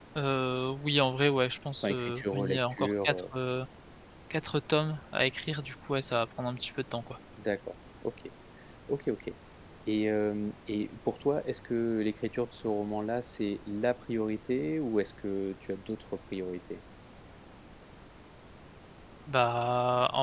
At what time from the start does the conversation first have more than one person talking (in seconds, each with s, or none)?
1.8 s